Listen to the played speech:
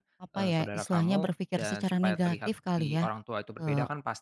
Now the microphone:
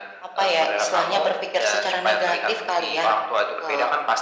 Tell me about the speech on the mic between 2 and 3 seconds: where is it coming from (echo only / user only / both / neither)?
echo only